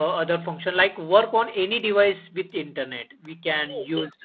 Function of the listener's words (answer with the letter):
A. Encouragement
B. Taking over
B